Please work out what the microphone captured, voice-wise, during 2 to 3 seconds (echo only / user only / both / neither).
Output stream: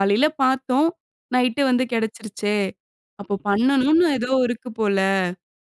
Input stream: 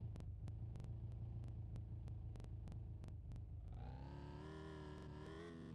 neither